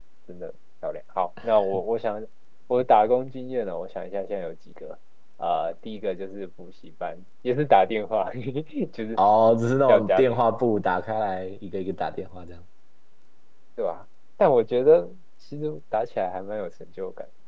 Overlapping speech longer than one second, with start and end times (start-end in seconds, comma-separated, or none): none